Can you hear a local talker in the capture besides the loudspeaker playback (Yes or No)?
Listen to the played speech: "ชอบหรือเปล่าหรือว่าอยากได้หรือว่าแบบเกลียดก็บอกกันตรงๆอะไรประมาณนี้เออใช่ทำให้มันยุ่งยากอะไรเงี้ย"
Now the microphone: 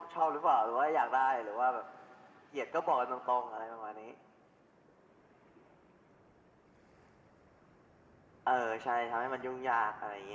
No